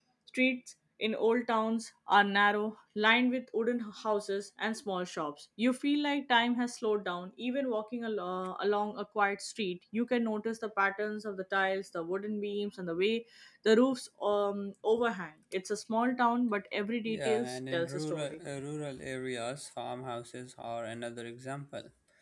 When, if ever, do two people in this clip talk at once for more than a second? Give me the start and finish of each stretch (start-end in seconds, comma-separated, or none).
17.1-18.4